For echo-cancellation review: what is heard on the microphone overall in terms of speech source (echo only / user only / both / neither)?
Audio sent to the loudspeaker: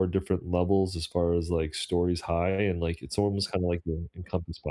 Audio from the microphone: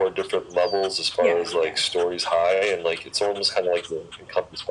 both